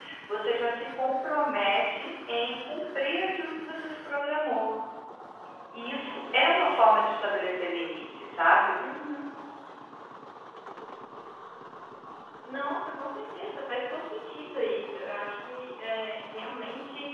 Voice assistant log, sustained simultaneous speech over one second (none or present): none